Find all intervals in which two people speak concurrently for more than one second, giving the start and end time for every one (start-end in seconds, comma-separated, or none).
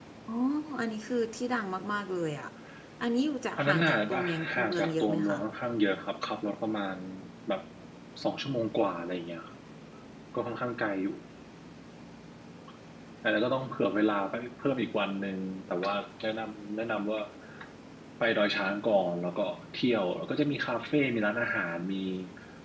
3.6-5.4